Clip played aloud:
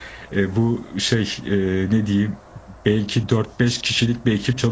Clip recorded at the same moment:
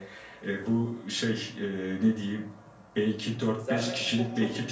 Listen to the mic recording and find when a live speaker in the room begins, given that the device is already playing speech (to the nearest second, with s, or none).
4 s